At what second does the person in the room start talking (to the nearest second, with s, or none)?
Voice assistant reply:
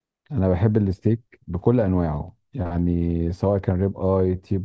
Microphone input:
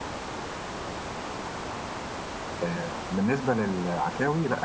3 s